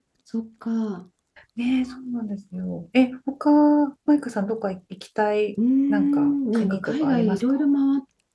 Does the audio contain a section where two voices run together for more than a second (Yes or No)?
Yes